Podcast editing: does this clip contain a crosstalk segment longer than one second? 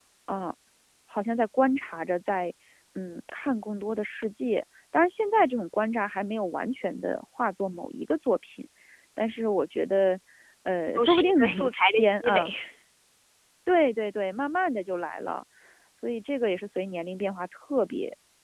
Yes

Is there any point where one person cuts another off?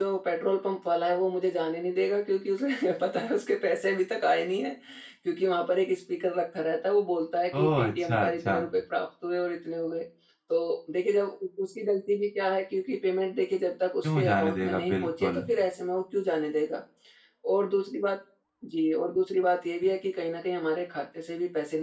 Yes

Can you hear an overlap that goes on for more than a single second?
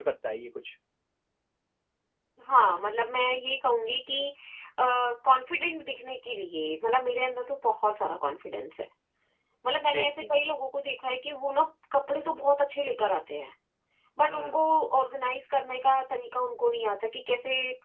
No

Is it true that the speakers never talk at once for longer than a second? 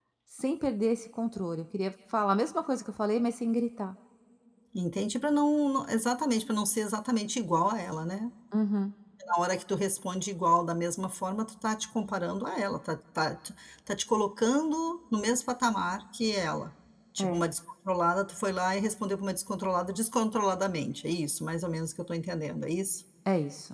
Yes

